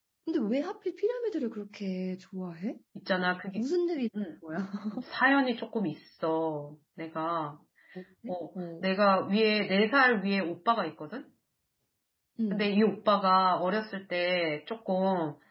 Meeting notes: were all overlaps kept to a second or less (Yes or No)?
Yes